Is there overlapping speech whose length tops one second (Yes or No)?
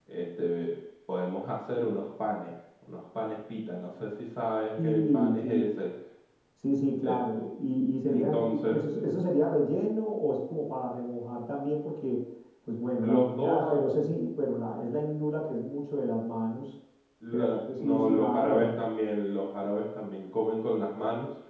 Yes